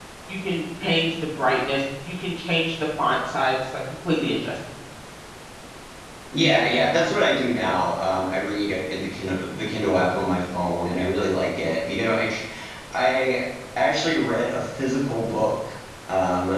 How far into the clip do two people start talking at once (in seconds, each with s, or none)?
none